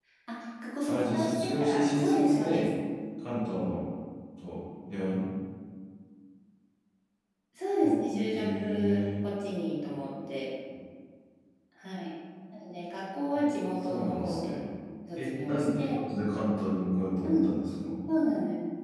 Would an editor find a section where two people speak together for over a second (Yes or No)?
Yes